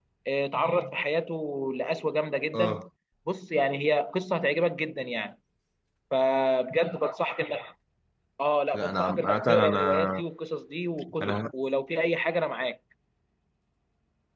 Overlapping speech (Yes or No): Yes